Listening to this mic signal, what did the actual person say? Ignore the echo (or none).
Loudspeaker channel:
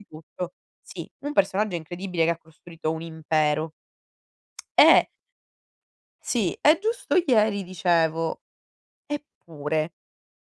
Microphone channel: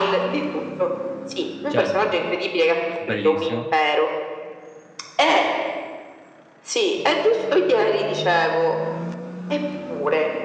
Certo, e che bellissimo.